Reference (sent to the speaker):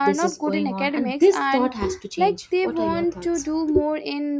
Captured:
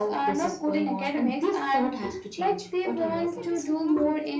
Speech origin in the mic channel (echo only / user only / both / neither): both